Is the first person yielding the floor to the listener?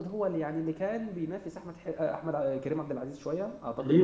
Yes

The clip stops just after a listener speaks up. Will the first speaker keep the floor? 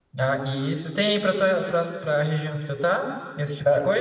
No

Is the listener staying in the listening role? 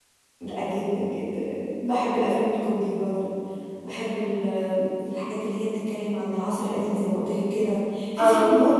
Yes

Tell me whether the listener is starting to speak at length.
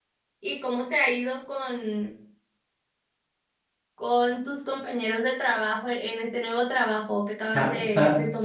Yes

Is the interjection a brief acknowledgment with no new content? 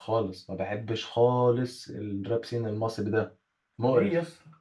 No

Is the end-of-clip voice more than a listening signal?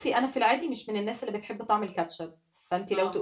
No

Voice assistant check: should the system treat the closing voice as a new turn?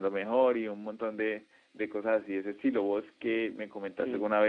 No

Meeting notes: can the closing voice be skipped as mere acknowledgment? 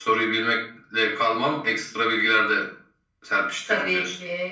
No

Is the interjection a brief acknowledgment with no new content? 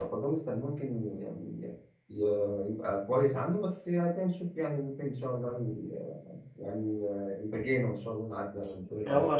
No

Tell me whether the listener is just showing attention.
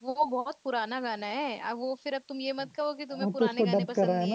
No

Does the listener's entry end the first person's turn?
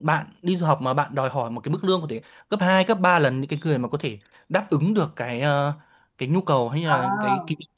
No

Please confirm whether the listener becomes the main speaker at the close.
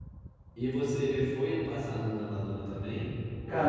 Yes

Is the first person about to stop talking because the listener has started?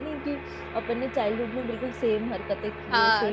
Yes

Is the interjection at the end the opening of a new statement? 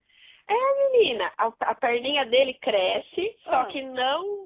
No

